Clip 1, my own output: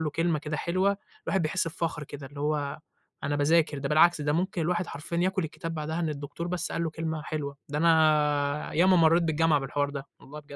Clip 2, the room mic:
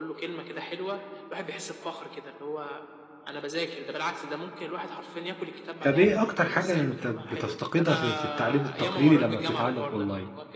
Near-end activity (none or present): present